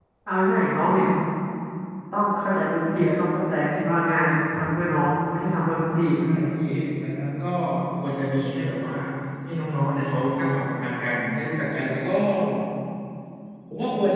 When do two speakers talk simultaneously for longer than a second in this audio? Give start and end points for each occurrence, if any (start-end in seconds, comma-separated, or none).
none